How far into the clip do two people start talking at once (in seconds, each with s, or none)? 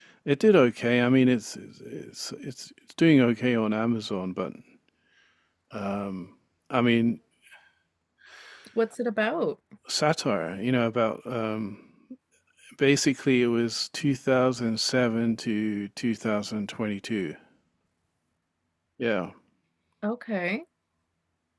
none